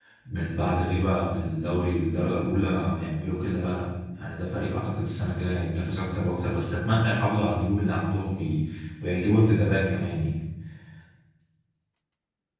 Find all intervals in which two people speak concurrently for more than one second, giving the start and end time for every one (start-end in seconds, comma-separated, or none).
none